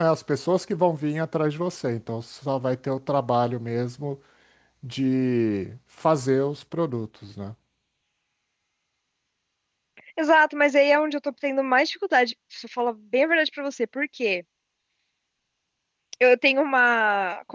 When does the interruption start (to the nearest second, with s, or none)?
none